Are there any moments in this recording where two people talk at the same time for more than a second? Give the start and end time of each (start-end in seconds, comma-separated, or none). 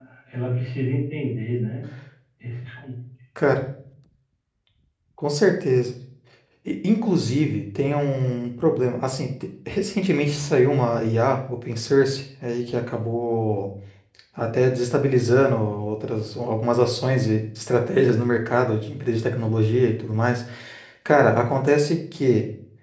none